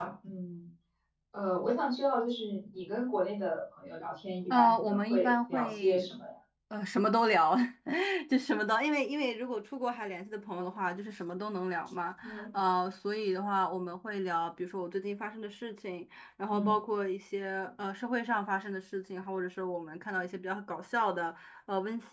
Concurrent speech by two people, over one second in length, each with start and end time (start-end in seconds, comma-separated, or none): 4.5-6.1